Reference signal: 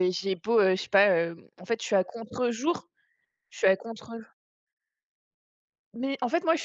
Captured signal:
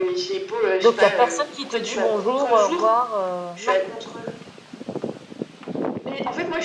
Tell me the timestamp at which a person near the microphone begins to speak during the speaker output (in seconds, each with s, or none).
0.8 s